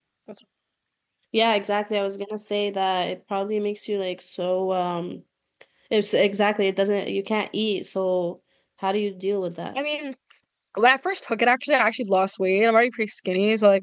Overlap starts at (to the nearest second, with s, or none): none